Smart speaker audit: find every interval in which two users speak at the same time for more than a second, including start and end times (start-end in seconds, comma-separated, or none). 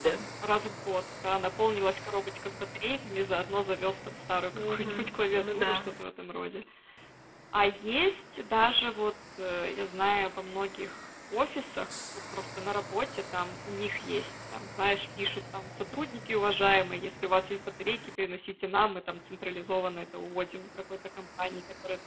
4.6-5.9